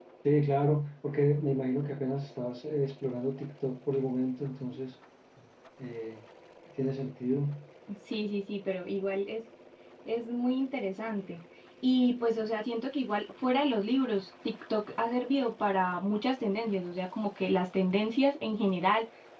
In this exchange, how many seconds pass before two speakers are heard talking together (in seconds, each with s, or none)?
none